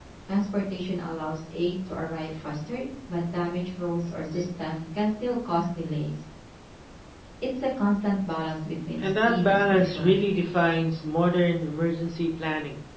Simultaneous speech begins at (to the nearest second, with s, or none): 9 s